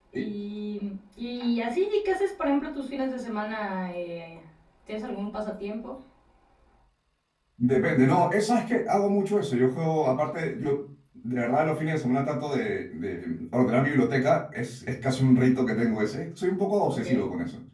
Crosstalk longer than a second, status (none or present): none